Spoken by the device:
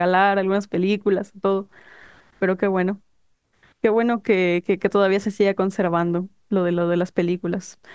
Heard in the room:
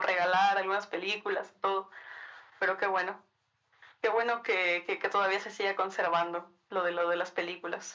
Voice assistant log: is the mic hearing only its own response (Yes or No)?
Yes